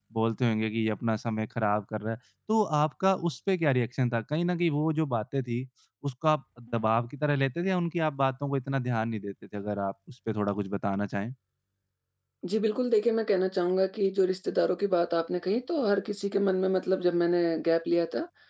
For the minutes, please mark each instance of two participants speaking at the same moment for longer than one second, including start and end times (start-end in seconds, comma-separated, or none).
none